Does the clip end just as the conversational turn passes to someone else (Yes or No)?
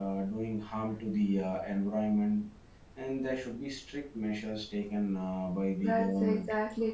Yes